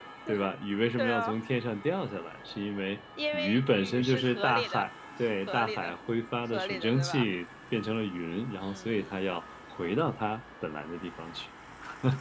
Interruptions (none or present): present